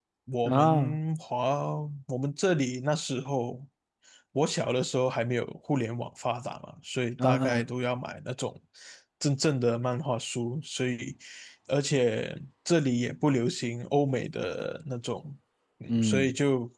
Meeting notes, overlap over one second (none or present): none